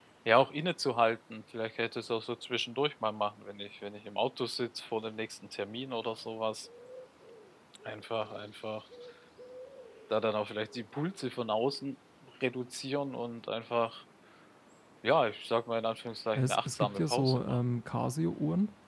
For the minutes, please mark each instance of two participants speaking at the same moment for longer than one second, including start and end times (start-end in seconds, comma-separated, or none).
16.4-17.6